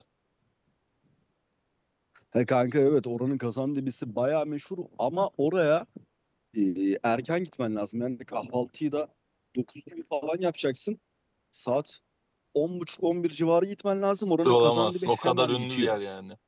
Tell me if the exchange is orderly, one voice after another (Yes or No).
No